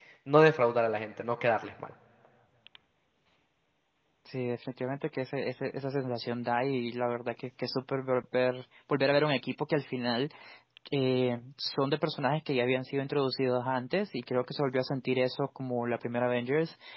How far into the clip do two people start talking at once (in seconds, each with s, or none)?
none